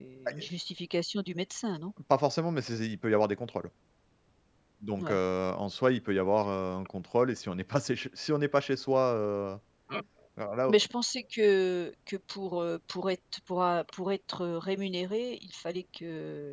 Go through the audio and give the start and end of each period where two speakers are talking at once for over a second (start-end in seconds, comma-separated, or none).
none